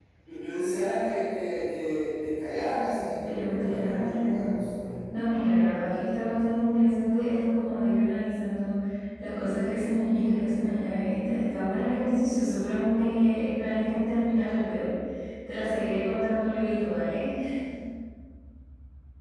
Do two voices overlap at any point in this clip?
Yes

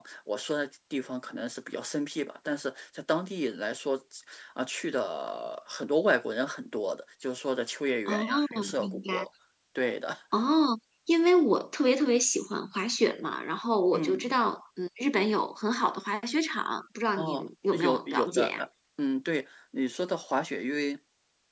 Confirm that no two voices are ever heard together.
No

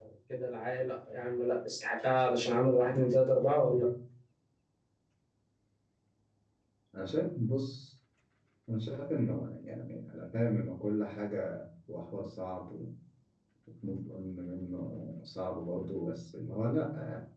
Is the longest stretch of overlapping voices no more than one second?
Yes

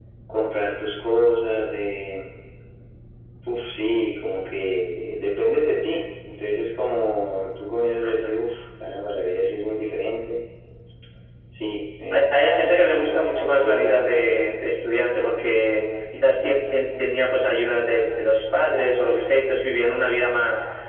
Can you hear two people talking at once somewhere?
Yes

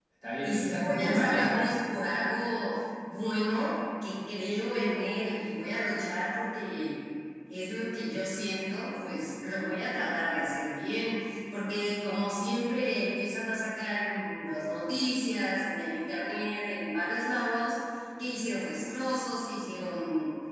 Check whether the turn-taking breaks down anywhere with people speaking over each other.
Yes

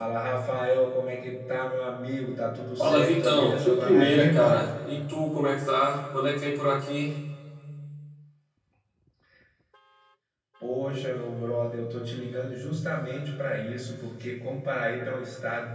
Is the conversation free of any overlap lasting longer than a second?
No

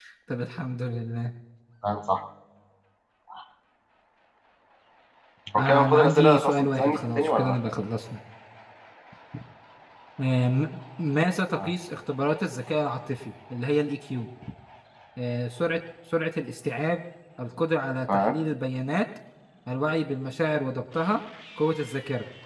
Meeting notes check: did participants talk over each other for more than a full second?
Yes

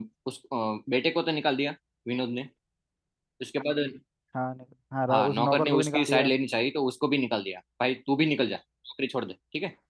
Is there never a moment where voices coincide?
No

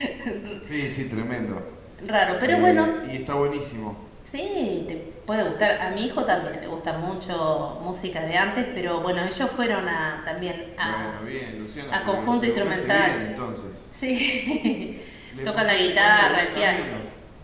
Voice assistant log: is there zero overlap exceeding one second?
No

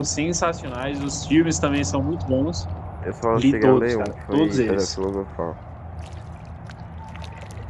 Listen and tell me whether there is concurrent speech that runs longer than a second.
Yes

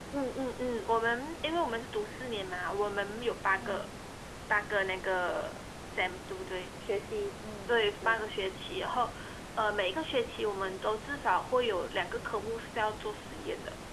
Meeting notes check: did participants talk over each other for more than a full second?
No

